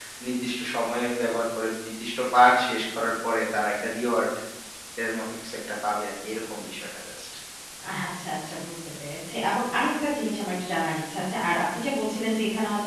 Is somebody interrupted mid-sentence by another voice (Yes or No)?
No